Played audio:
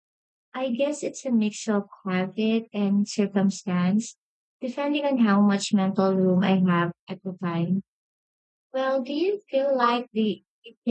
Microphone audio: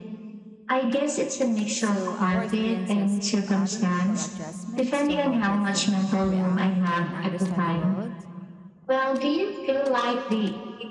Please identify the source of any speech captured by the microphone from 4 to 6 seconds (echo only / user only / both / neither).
both